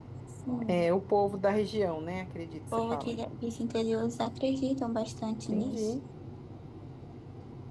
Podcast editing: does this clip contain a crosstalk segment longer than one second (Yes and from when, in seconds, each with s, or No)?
No